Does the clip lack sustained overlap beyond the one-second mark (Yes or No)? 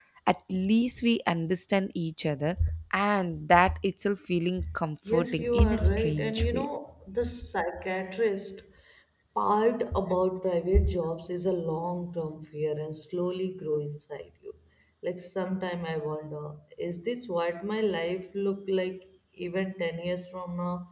No